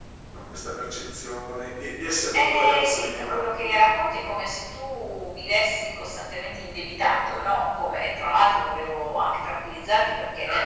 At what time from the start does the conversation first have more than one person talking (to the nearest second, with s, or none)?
2 s